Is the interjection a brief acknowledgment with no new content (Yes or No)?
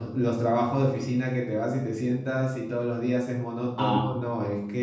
Yes